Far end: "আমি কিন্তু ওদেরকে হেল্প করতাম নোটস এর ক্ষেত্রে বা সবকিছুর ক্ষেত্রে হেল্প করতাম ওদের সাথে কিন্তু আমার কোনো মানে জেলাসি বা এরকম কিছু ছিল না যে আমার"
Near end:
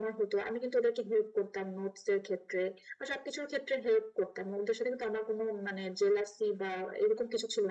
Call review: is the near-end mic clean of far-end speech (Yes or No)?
No